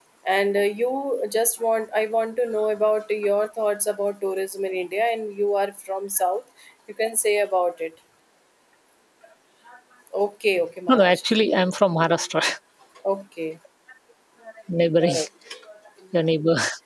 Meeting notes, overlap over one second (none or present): none